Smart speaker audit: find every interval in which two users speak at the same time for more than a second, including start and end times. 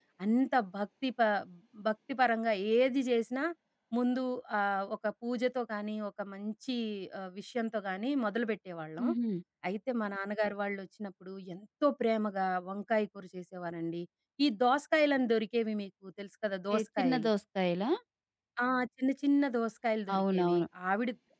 none

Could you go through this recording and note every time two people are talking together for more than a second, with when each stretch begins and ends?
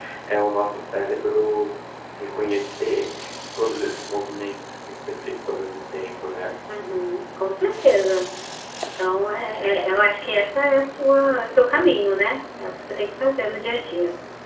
none

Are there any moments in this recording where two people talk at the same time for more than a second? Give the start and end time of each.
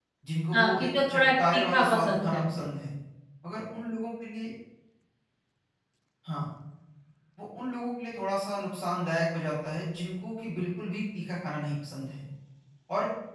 0.5-2.7

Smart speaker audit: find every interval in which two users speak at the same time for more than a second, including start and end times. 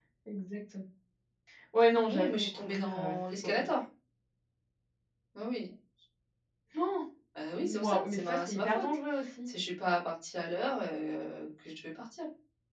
2.1-3.7, 7.6-8.8

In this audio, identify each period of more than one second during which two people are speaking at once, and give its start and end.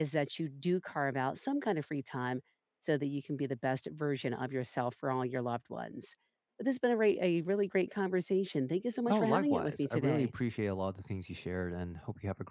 9.1-10.3

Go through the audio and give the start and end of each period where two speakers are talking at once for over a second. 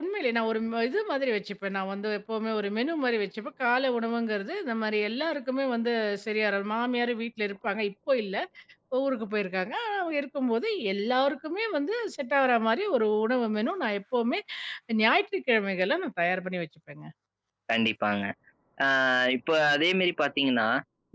none

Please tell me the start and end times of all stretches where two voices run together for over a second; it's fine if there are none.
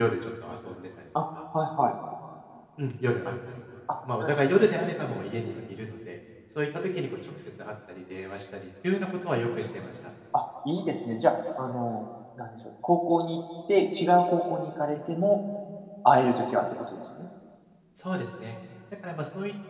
none

